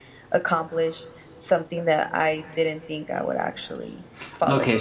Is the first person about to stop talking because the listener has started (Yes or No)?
Yes